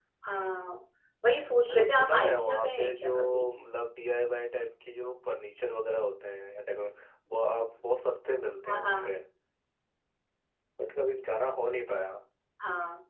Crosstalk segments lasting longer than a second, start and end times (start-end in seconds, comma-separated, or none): 1.6-3.5